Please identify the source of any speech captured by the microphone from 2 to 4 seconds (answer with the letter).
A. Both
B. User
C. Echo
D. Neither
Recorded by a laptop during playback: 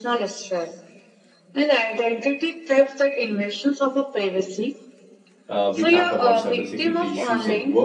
C